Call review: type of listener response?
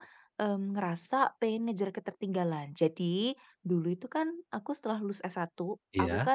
listening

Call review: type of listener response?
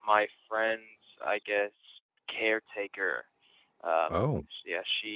listening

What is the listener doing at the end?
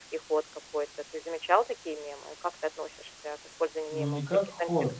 taking over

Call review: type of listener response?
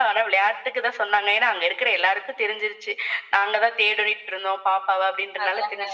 listening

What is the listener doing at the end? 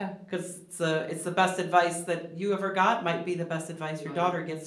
listening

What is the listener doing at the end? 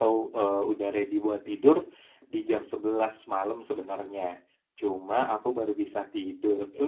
listening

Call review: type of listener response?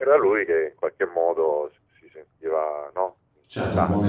taking over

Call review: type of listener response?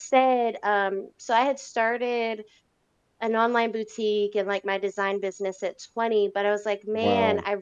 listening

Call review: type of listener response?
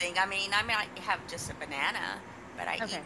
taking over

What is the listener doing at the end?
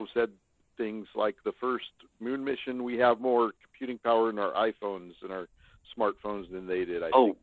taking over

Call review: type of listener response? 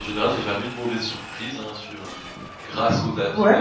taking over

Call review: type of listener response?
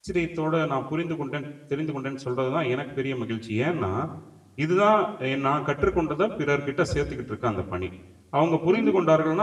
listening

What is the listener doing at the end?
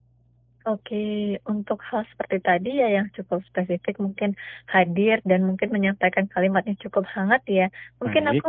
listening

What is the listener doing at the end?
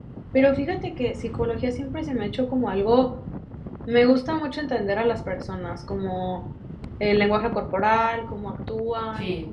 listening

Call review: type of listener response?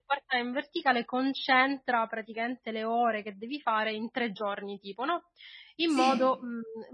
listening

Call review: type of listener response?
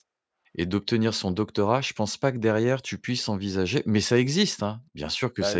taking over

